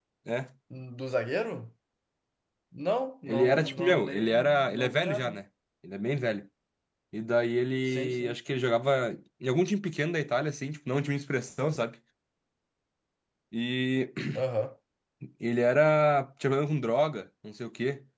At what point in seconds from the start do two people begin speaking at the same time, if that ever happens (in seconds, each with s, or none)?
3.3 s